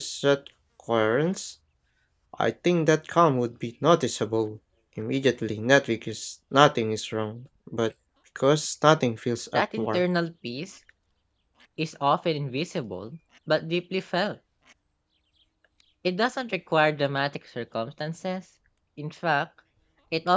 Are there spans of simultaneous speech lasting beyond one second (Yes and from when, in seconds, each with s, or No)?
No